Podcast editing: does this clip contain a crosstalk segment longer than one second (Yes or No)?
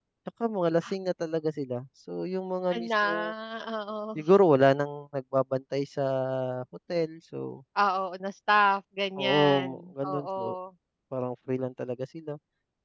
Yes